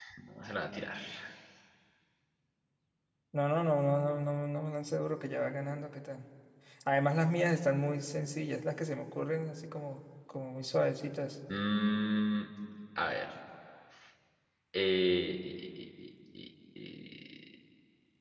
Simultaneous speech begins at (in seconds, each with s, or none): none